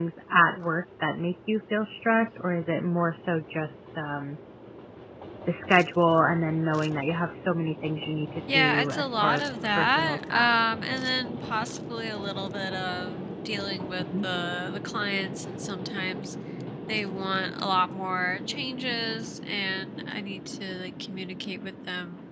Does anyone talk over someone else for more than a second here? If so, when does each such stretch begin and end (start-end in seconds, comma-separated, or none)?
8.5-10.5